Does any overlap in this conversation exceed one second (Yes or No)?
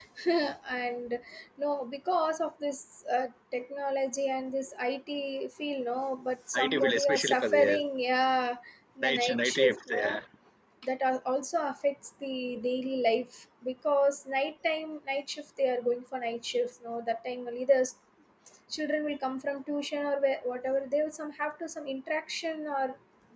Yes